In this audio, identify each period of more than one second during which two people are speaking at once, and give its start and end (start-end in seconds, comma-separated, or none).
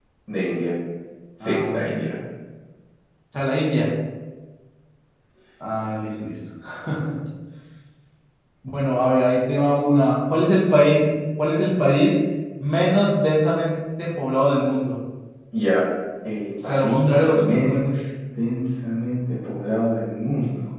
16.6-17.9